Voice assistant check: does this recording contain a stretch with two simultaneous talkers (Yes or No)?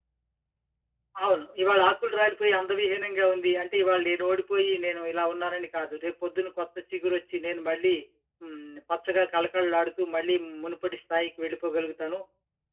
No